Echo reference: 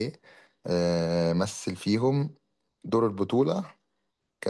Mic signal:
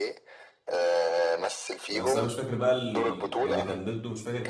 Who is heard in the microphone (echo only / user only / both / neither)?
both